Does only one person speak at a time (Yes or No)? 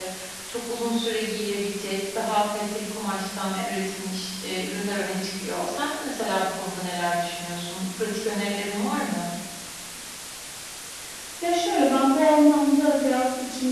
Yes